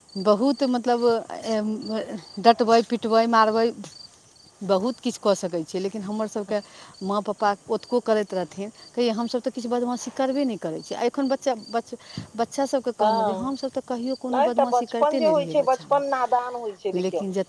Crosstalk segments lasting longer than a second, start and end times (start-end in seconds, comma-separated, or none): 14.3-15.8